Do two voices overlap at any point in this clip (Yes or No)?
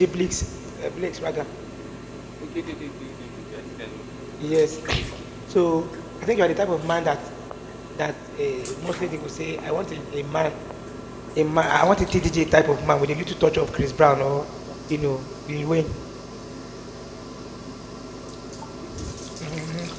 No